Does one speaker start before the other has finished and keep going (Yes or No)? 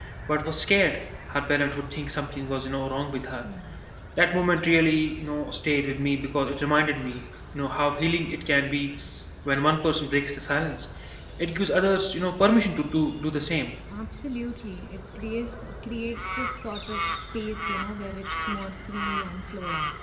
No